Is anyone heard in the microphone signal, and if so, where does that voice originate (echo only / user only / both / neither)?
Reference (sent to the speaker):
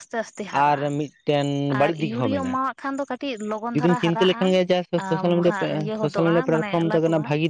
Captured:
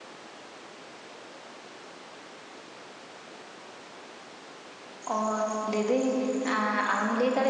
user only